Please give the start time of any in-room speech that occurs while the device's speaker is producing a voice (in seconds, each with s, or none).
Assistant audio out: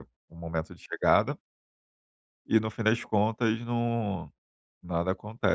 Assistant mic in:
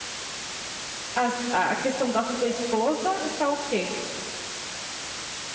1.2 s